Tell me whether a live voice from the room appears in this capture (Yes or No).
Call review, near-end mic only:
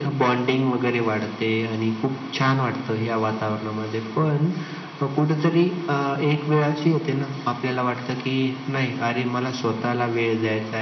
No